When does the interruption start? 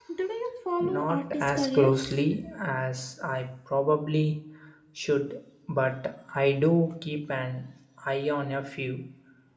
1 s

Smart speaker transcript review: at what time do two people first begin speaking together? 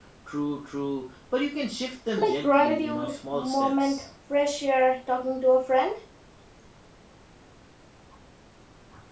2 s

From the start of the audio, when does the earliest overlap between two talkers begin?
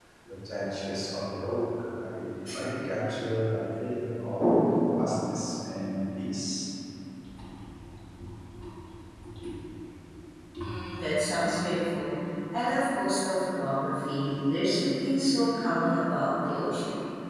none

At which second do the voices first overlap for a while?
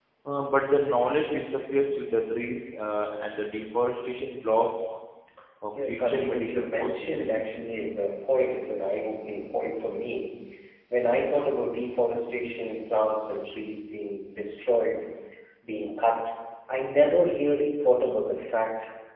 6 s

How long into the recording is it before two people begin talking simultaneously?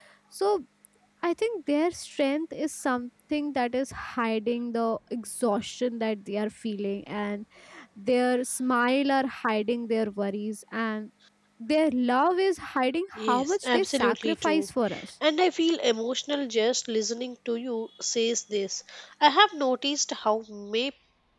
13 s

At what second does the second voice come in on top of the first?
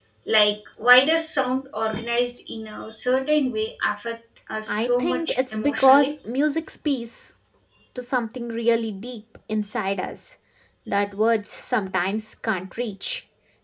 5 s

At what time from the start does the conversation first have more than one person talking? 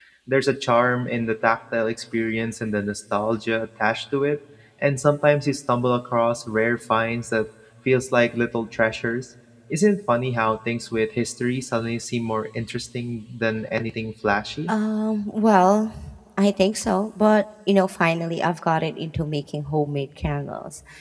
none

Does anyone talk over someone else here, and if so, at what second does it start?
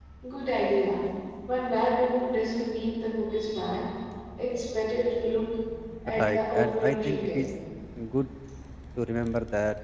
6 s

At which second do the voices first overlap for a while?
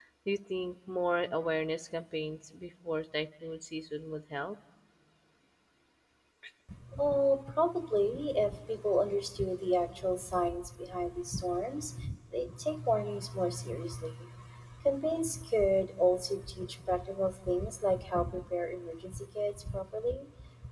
none

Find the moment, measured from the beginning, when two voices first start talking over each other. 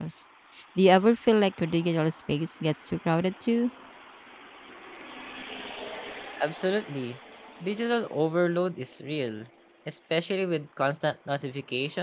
none

